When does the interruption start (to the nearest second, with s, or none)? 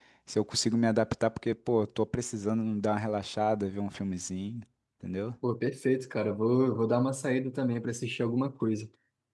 none